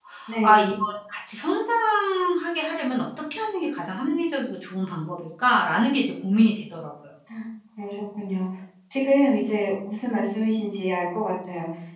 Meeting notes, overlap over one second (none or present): none